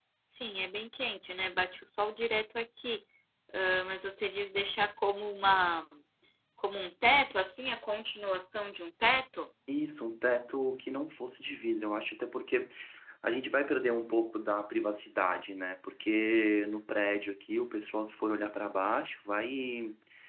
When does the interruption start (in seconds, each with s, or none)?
none